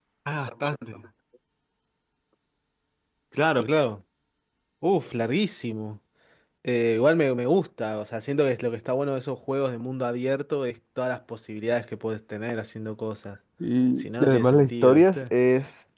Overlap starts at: 14.0 s

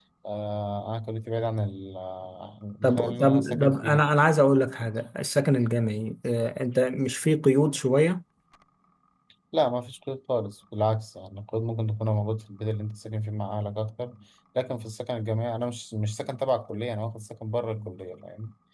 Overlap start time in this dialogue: 2.8 s

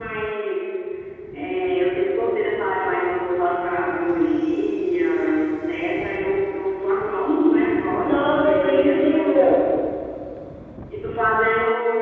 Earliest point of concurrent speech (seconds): 8.0 s

